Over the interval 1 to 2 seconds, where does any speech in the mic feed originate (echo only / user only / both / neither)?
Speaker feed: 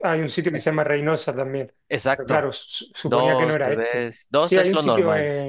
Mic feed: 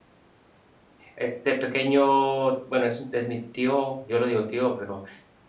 user only